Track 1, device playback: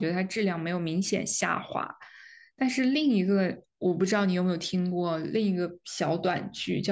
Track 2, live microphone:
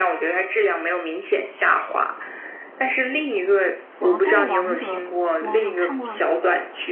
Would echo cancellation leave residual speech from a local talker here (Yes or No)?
Yes